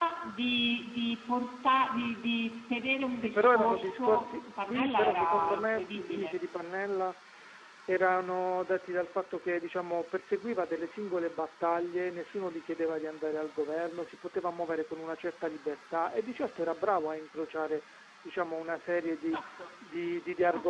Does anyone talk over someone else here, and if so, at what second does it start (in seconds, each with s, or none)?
3.2 s